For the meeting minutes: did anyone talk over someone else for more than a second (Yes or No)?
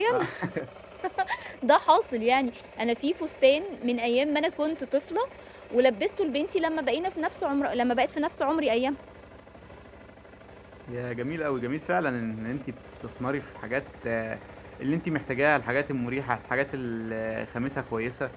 No